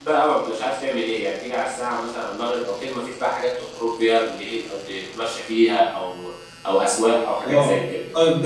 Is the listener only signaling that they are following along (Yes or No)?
No